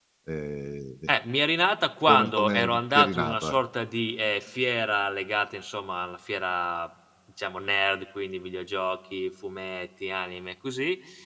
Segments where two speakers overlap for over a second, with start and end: 2.1-3.6

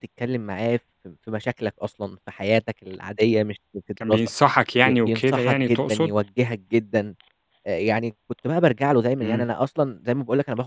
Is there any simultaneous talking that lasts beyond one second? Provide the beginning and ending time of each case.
4.9-6.1

